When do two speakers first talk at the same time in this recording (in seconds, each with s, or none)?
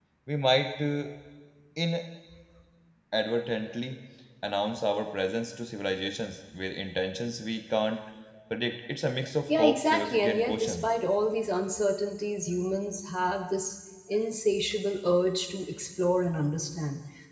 9.5 s